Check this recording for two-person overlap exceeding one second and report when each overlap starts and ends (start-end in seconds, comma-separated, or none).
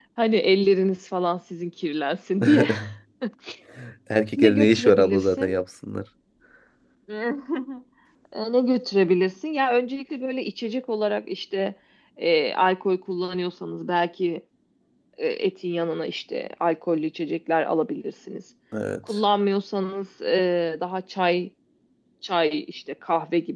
4.4-5.6